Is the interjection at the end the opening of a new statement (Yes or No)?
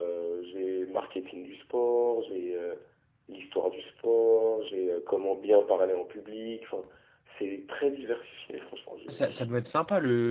Yes